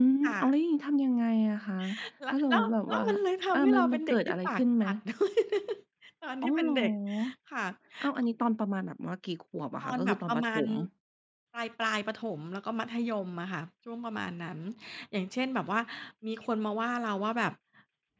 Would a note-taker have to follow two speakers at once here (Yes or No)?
Yes